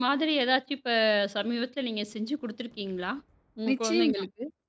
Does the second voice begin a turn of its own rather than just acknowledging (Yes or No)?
Yes